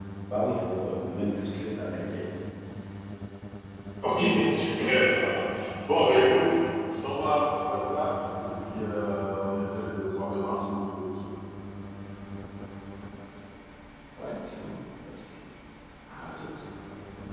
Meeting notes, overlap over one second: none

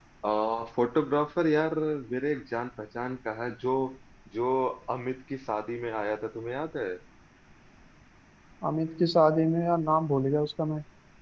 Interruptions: none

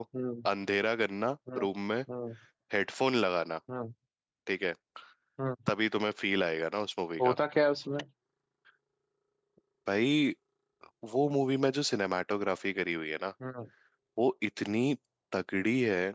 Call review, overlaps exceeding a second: none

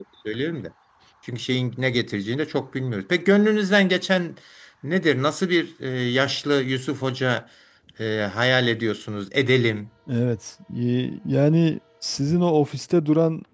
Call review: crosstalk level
none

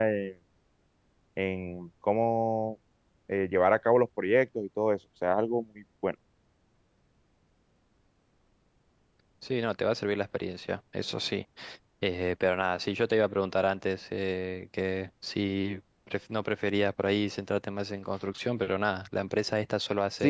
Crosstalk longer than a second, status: none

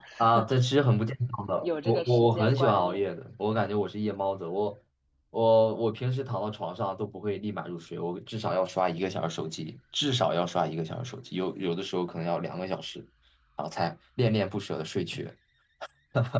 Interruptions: present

